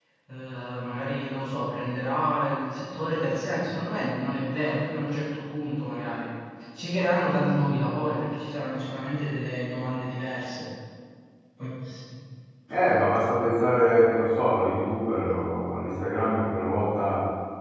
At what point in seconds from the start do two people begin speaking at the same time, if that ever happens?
none

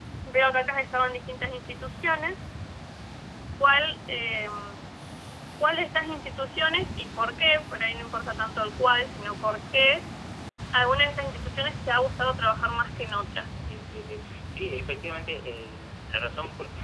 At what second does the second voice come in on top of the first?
none

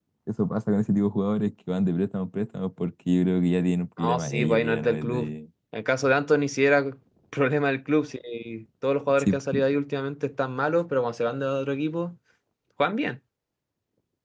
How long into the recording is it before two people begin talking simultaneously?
4.0 s

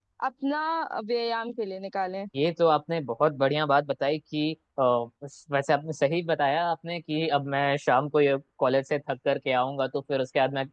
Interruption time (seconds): none

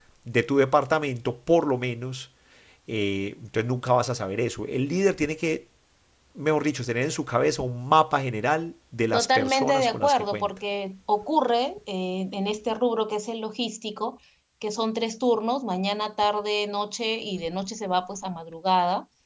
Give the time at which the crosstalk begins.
9.1 s

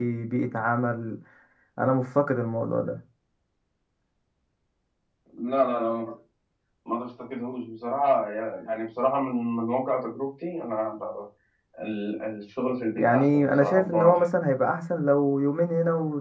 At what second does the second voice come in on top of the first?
13.0 s

